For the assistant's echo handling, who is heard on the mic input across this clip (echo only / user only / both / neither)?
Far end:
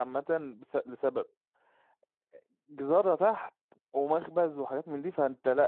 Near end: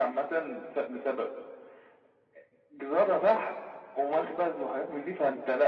echo only